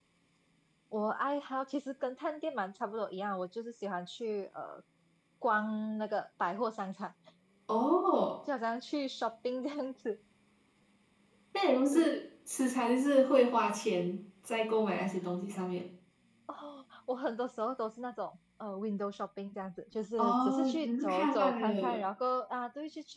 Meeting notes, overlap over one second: present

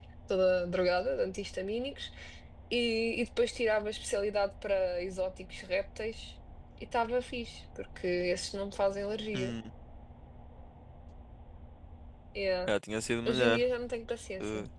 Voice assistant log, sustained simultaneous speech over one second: none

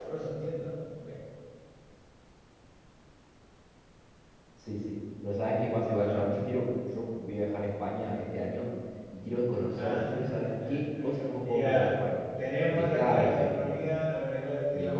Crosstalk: present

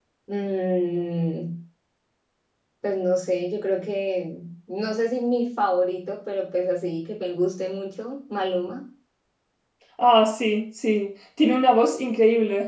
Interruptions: none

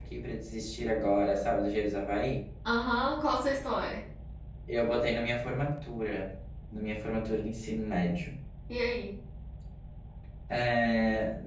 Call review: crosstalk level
none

